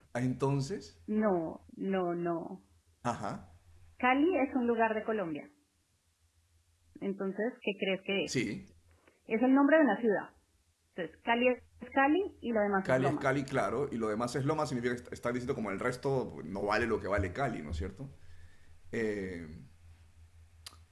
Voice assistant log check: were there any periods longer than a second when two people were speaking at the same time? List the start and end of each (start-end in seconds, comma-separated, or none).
none